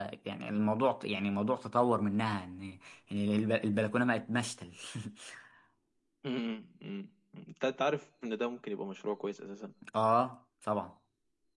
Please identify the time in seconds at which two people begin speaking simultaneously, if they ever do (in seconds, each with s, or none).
none